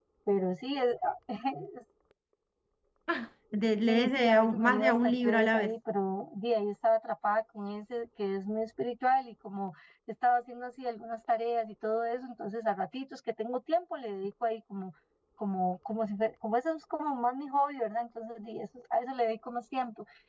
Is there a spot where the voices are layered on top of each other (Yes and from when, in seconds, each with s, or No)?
Yes, from 3.9 s